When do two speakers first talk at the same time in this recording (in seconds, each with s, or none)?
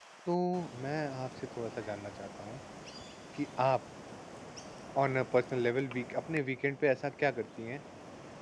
none